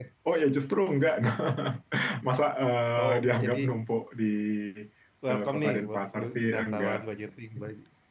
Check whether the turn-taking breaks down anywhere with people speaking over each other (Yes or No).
Yes